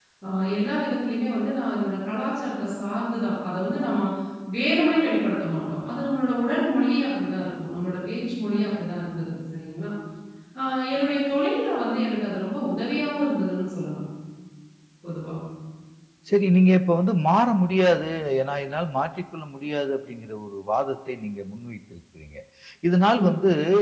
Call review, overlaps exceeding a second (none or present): none